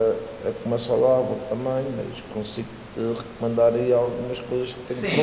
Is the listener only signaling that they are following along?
No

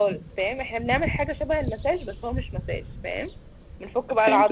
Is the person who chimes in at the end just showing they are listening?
No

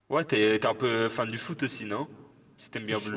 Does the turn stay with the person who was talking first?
No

